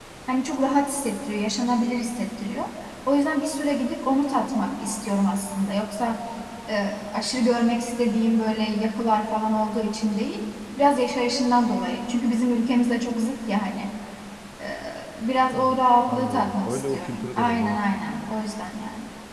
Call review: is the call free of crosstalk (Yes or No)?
No